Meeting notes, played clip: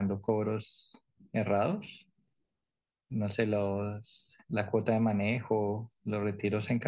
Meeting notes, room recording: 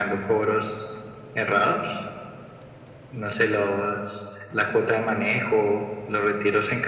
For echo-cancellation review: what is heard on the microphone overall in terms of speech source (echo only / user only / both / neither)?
echo only